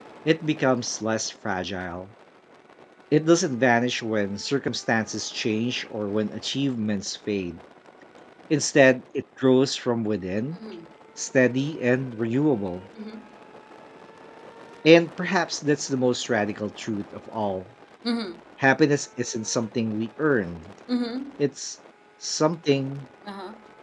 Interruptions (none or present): none